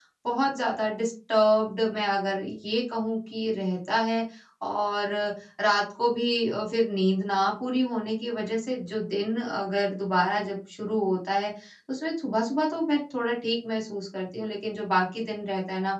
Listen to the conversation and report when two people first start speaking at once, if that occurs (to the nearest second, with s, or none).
none